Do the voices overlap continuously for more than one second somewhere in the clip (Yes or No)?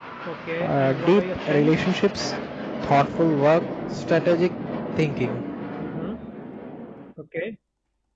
Yes